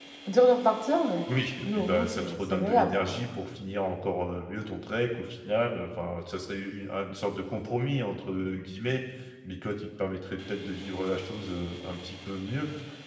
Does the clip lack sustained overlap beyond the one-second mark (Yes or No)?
No